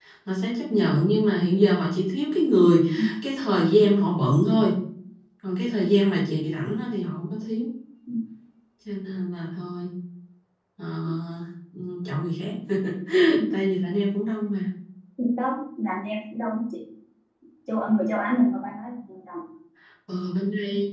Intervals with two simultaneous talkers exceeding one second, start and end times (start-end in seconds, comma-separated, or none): none